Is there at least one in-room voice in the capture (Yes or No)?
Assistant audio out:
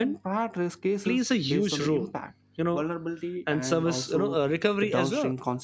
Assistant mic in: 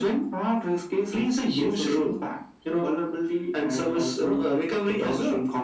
No